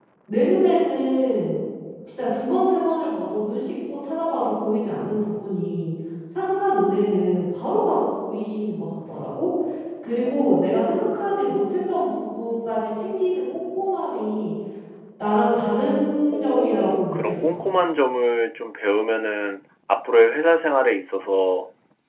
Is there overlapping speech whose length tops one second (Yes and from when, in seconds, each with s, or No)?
Yes, from 16.3 s